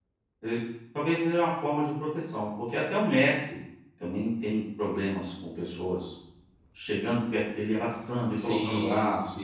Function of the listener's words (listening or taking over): taking over